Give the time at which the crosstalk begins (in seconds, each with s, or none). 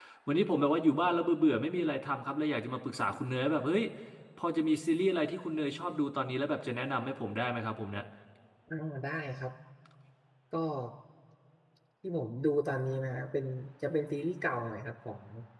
none